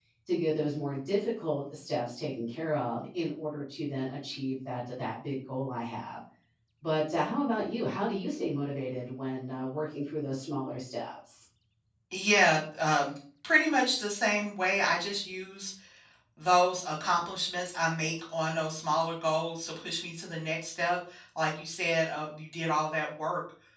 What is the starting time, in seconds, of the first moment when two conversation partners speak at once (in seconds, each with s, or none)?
none